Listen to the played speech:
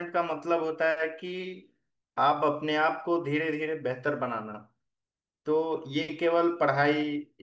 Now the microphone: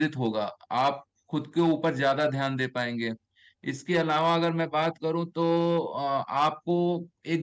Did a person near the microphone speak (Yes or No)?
Yes